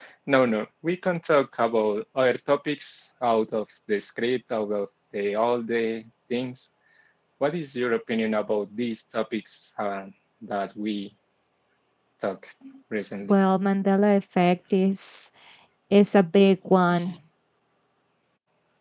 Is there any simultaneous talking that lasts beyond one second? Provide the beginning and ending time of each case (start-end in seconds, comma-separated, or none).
none